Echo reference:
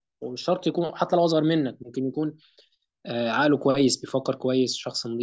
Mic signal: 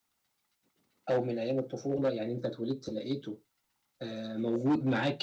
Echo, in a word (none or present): none